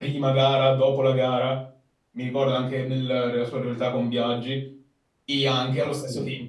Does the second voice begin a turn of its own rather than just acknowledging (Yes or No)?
No